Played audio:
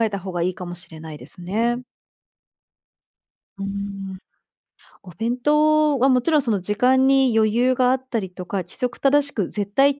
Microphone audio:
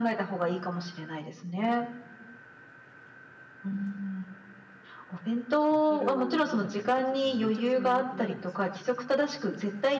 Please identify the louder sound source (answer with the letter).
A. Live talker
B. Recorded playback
B